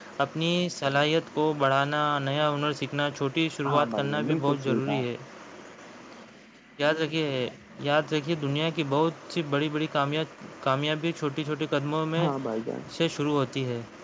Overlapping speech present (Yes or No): Yes